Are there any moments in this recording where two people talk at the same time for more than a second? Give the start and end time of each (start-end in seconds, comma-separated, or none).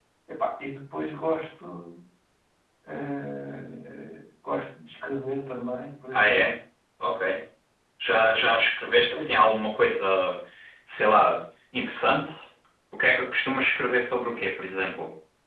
none